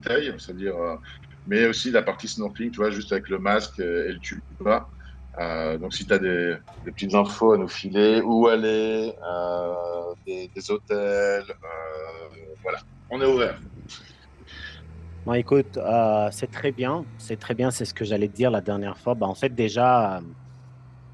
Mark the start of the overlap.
none

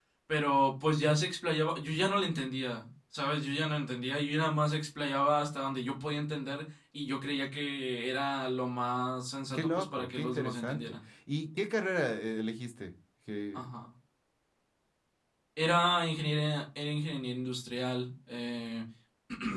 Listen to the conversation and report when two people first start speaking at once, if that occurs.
9.5 s

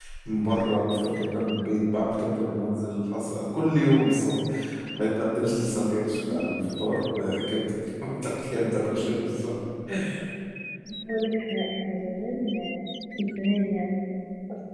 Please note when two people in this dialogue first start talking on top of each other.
none

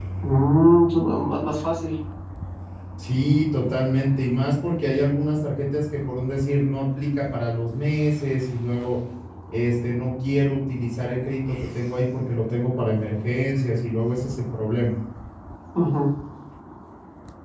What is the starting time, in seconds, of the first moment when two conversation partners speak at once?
none

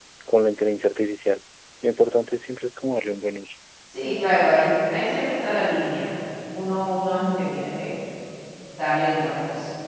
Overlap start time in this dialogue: none

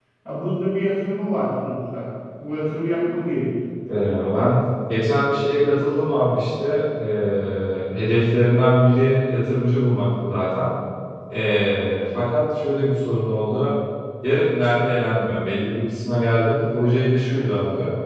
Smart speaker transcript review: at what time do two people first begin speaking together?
none

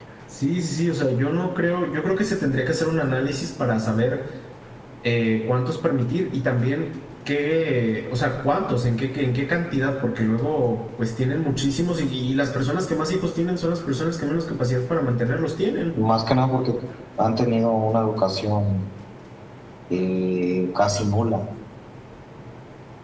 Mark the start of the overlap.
none

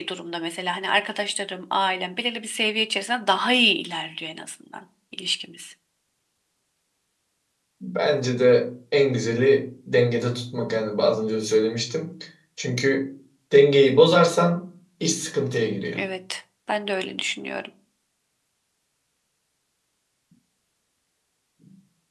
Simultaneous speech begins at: none

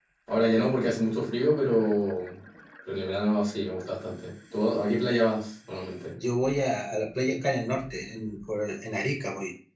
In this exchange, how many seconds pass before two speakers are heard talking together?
none

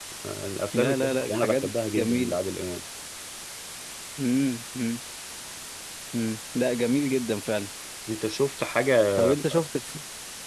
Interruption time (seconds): 0.7 s

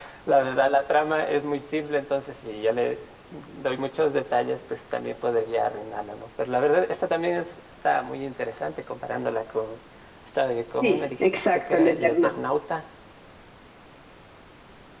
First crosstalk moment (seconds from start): 10.8 s

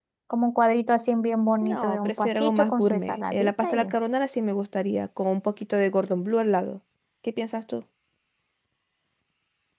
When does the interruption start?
1.6 s

